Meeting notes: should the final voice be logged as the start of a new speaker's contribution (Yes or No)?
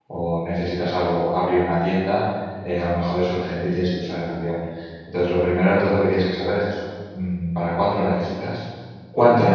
Yes